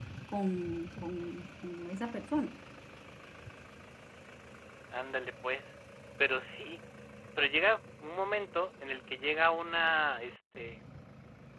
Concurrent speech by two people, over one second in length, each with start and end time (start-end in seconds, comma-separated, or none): none